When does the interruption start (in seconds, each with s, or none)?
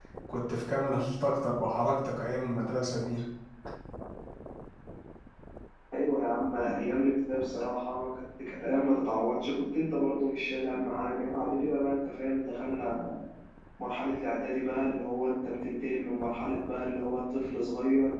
none